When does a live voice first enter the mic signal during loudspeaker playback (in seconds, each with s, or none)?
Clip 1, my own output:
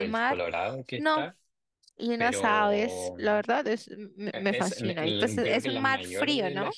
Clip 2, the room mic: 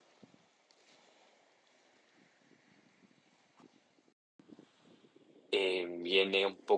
5.5 s